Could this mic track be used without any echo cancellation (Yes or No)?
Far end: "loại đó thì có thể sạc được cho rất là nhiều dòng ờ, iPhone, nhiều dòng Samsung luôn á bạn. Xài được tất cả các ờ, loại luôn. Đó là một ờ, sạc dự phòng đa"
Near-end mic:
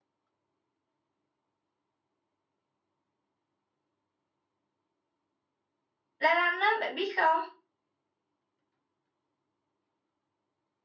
Yes